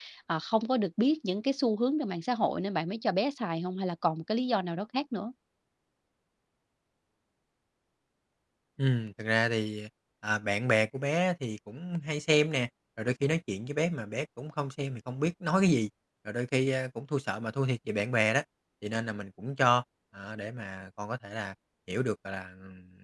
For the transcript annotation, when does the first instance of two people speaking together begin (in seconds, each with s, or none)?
none